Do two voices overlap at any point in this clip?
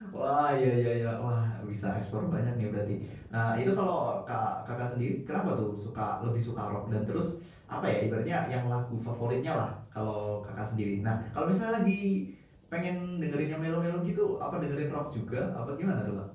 No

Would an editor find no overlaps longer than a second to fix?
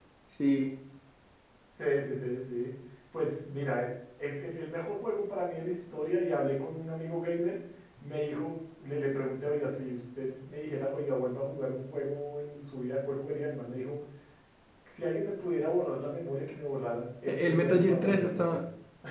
No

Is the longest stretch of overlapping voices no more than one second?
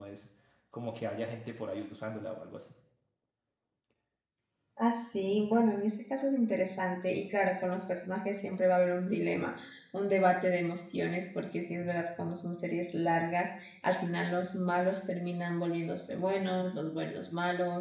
Yes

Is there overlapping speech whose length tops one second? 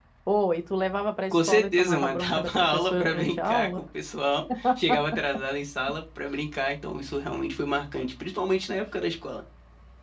Yes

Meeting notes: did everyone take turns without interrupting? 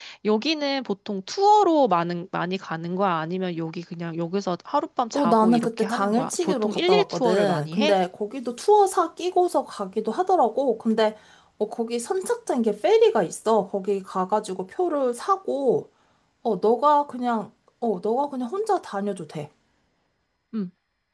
No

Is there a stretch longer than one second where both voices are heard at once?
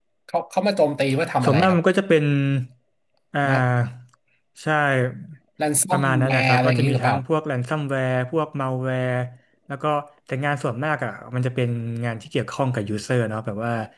Yes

